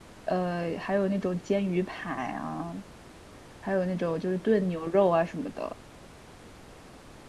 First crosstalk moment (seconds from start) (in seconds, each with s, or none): none